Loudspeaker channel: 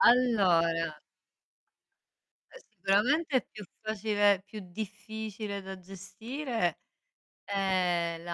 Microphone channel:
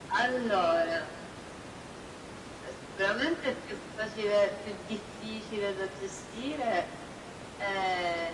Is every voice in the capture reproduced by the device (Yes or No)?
Yes